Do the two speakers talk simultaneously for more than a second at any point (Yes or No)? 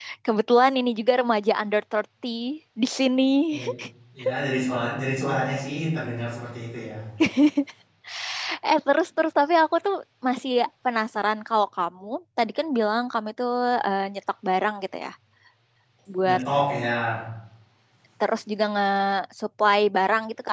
No